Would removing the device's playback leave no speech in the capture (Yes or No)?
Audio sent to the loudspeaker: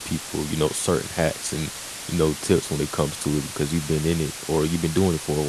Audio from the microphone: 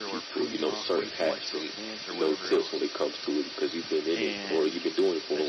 No